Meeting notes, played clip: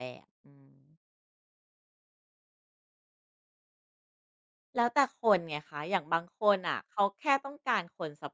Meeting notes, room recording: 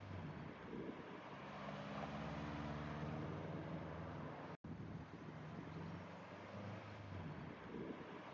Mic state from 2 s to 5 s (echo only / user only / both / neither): neither